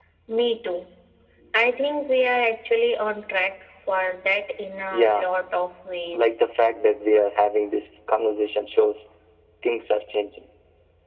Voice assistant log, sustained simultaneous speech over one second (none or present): none